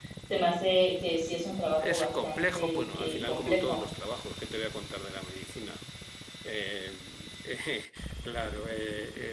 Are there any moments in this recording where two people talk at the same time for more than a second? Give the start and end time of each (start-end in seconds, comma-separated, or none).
1.8-3.8